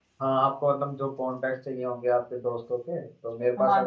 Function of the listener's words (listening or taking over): taking over